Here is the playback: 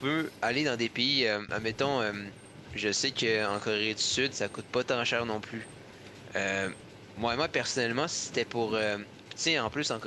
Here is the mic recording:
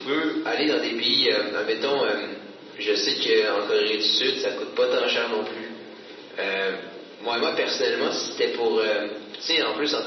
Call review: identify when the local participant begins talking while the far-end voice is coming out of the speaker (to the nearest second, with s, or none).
none